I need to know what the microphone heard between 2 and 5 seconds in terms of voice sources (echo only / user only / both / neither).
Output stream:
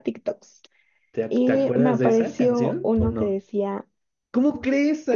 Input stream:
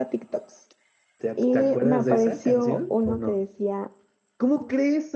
echo only